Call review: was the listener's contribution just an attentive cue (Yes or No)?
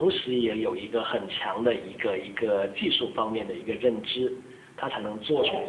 Yes